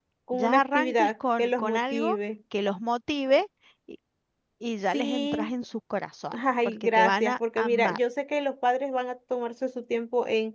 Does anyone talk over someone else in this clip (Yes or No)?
Yes